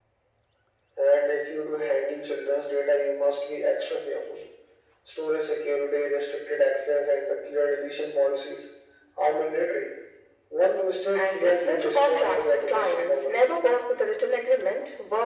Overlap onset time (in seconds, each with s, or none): 11.1 s